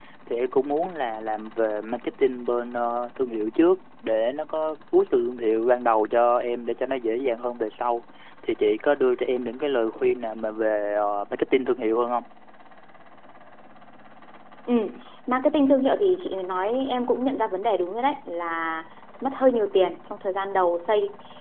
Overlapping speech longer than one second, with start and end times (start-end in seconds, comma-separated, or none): none